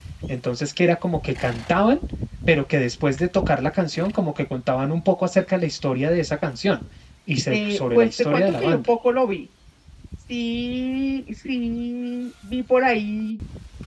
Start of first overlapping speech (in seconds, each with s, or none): 7.5 s